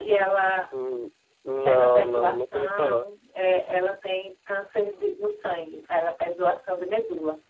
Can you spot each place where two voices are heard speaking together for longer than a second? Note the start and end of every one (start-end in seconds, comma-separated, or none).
1.6-3.1